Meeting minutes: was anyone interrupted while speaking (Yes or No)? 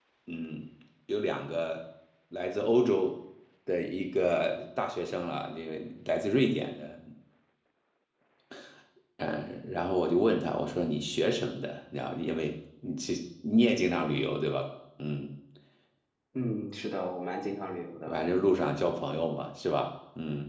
No